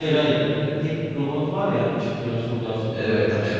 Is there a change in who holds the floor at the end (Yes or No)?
Yes